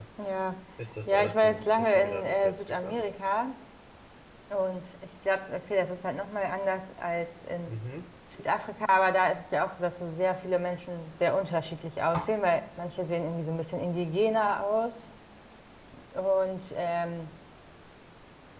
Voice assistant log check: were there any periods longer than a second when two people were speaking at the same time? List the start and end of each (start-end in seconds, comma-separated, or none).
1.1-3.0